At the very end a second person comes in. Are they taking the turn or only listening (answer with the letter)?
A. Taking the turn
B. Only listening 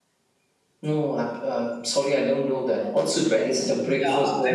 A